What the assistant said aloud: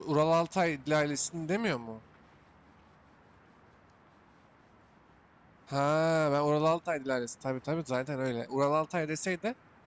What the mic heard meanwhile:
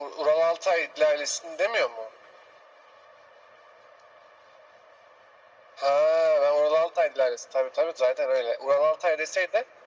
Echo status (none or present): present